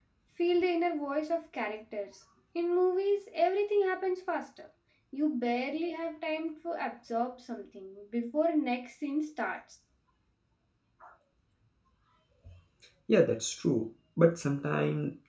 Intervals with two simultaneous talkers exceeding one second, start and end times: none

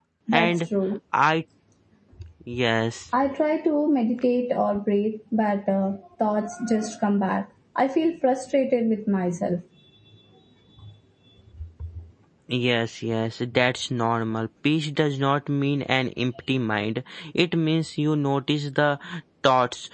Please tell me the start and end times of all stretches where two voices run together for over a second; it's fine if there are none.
none

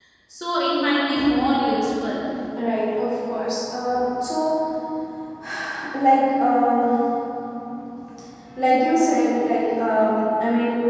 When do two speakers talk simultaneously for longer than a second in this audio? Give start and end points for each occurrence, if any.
none

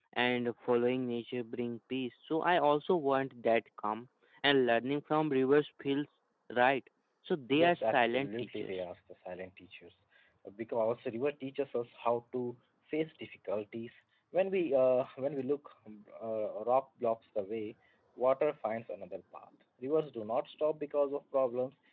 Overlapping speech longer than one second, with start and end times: 7.5-8.7

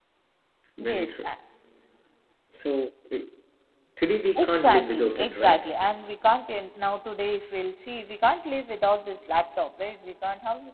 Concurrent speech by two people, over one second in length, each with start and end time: 4.4-5.7

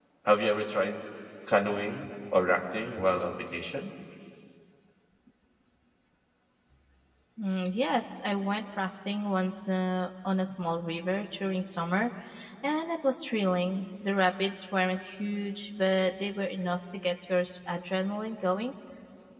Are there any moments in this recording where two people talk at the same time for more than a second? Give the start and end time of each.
none

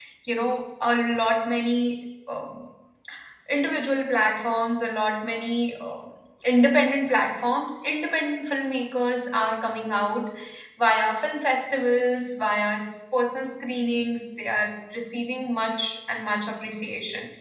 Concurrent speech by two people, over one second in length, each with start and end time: none

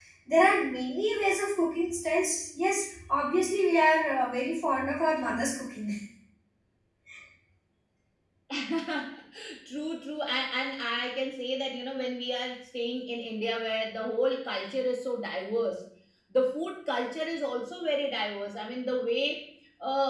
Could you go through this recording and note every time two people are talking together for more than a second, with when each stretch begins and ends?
none

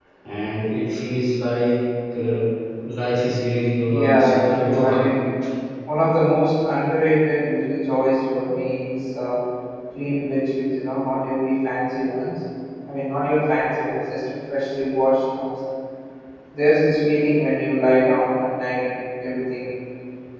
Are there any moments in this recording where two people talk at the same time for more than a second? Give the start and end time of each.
3.9-5.1

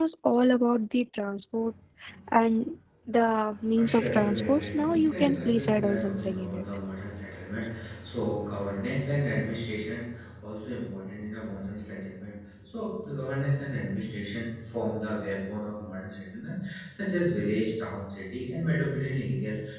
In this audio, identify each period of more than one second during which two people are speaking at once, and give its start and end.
3.7-6.6

